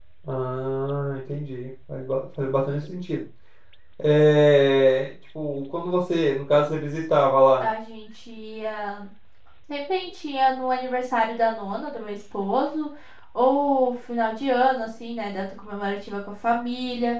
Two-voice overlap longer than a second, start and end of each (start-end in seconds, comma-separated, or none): none